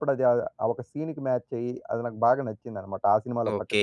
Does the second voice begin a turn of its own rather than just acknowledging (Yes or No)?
Yes